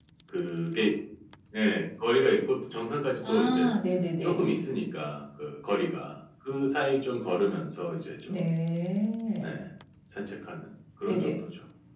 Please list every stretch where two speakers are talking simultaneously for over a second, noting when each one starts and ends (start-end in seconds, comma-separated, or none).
none